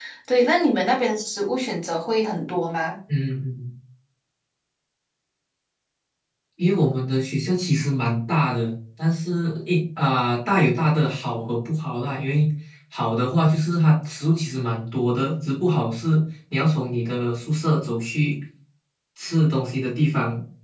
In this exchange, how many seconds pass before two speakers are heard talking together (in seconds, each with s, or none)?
none